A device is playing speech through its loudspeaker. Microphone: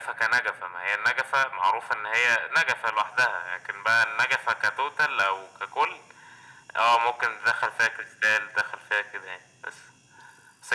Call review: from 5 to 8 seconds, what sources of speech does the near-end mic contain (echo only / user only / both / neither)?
echo only